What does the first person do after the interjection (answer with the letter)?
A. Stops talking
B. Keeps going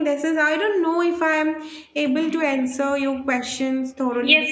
A